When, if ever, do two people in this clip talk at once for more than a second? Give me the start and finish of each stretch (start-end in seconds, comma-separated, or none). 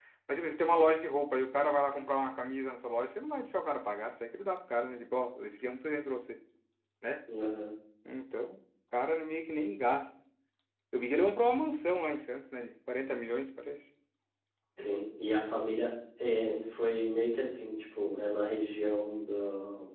none